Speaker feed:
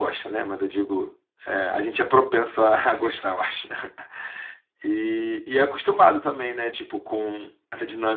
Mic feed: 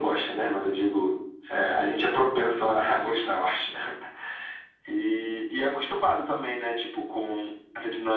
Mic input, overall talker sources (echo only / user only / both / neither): echo only